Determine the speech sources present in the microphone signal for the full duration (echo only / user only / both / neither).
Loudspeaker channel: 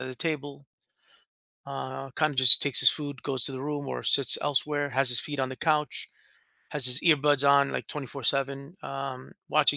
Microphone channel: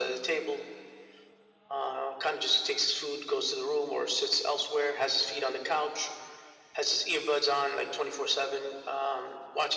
echo only